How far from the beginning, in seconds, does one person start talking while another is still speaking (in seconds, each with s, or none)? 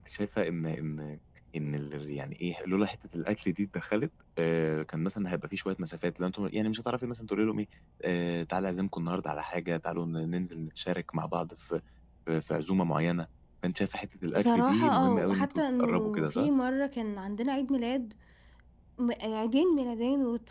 14.3 s